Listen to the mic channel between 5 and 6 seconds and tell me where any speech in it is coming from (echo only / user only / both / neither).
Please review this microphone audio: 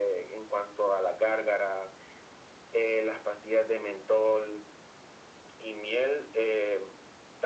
echo only